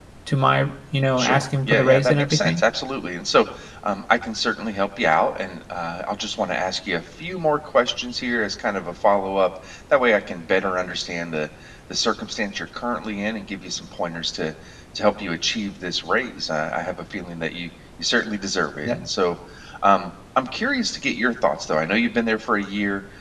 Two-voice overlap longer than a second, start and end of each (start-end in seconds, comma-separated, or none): 1.2-2.6